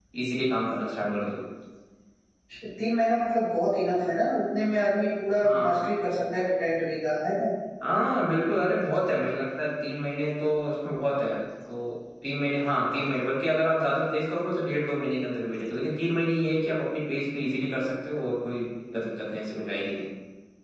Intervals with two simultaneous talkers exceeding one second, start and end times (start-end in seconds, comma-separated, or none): none